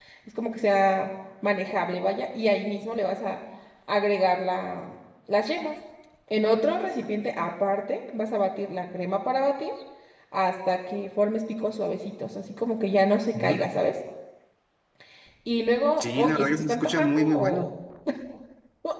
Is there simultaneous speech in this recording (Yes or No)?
Yes